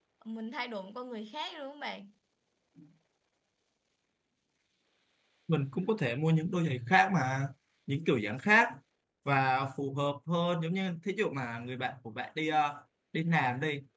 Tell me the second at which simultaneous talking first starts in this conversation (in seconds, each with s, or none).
none